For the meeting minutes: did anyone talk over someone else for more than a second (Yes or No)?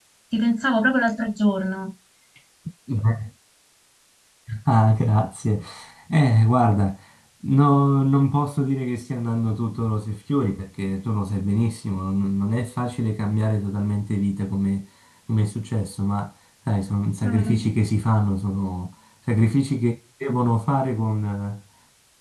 No